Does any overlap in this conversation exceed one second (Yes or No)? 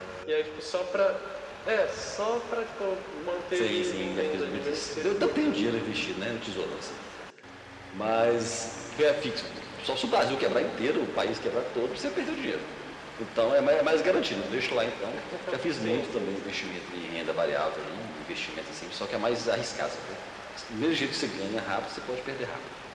Yes